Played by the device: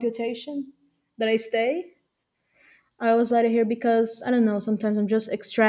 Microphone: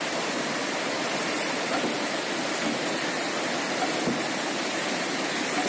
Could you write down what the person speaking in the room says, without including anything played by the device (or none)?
none